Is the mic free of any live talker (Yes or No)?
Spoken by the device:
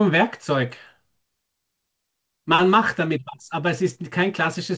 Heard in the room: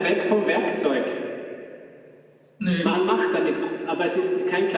No